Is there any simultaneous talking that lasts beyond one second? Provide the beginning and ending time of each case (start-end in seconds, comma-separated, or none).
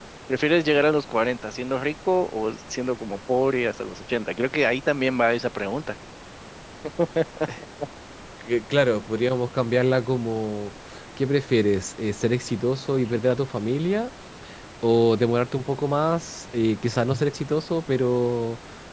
none